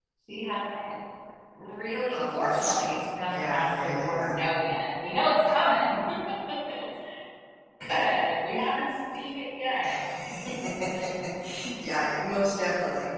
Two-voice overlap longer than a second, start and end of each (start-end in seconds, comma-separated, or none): 2.1-4.3